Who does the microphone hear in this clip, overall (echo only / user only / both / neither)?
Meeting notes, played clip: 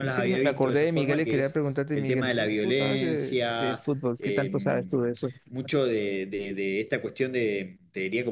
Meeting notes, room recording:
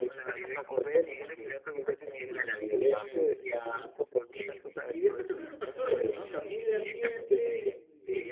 both